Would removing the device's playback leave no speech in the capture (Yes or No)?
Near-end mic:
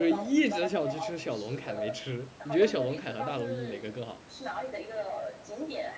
No